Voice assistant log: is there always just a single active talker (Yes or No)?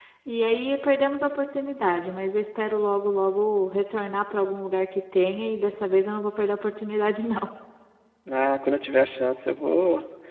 Yes